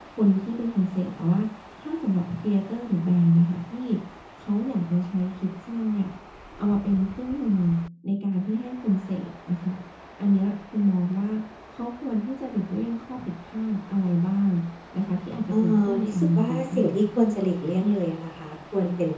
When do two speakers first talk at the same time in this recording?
16 s

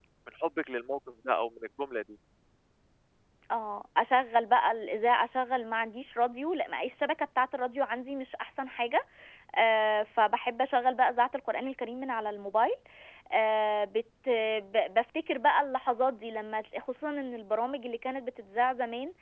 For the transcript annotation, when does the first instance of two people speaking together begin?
none

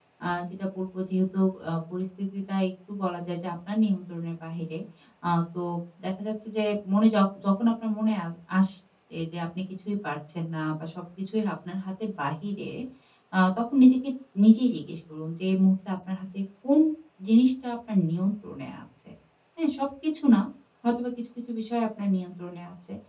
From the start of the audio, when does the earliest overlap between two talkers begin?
none

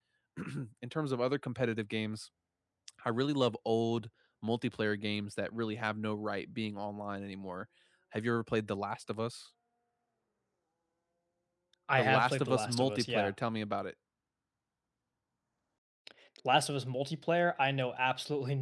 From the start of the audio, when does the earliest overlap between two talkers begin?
12 s

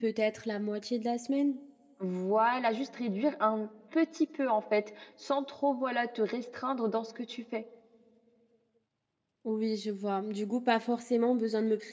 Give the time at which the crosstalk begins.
none

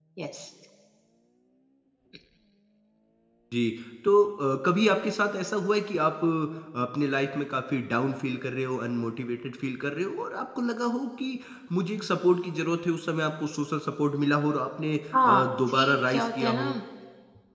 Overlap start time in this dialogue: 15 s

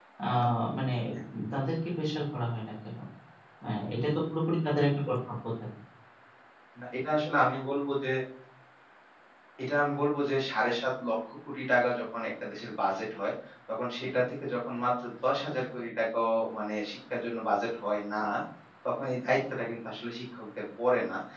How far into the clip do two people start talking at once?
none

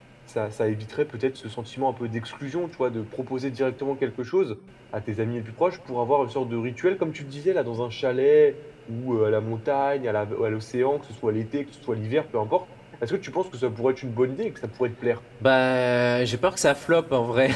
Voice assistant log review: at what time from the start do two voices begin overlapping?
none

